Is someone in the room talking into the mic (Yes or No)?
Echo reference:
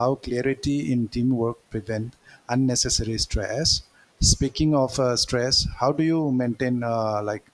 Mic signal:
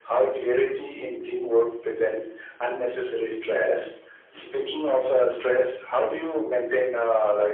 No